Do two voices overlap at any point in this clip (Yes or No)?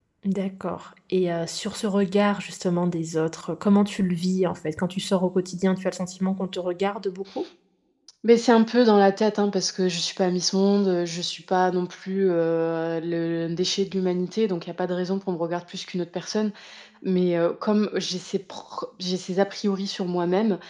No